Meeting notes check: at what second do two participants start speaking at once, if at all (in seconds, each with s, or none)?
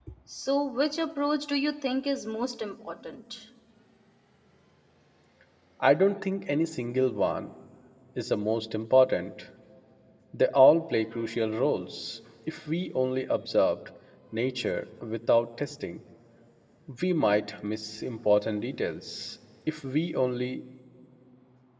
none